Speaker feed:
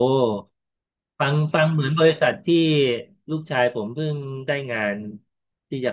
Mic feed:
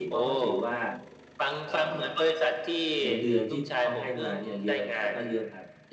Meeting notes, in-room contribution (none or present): present